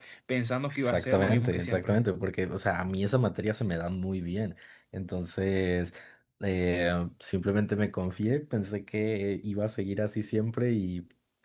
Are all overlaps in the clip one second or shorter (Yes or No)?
No